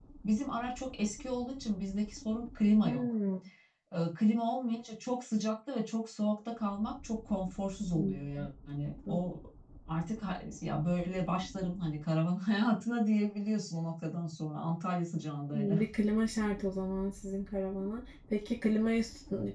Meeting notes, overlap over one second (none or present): none